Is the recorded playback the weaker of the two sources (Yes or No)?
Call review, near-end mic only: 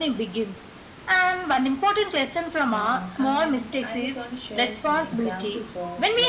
No